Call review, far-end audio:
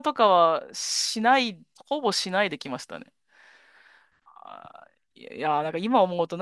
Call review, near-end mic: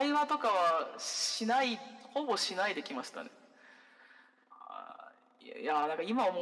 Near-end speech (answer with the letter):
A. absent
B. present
A